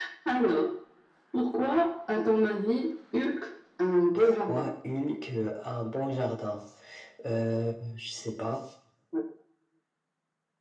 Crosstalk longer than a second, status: none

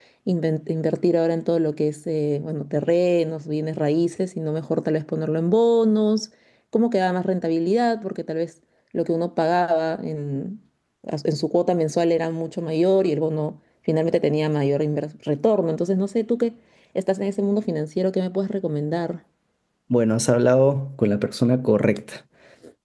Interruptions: none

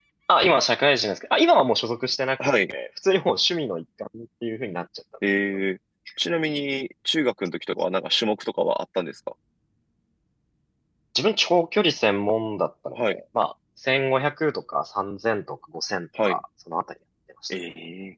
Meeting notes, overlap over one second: none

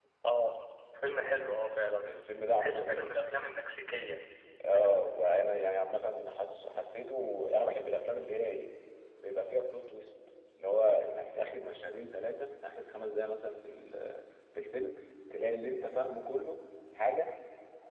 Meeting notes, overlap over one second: none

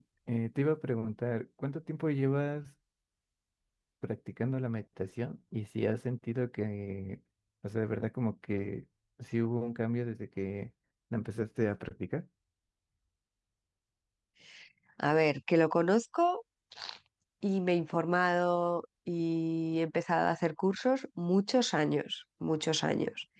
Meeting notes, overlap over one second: none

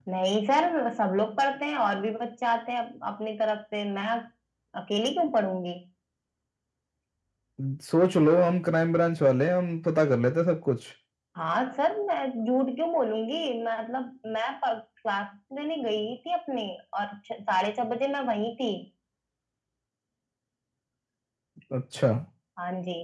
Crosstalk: none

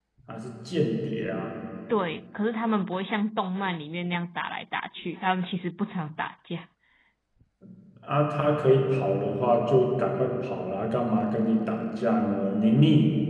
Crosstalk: none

